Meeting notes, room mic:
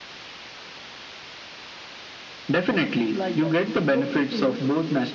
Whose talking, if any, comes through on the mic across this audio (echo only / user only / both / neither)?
both